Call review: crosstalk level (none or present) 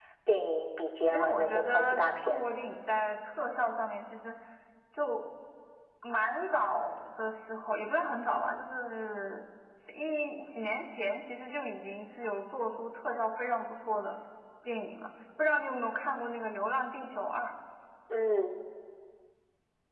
present